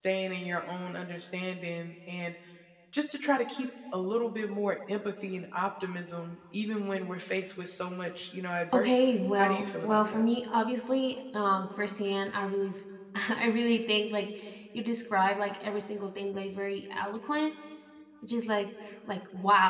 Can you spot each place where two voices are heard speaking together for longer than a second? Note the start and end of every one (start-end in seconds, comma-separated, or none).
8.7-10.2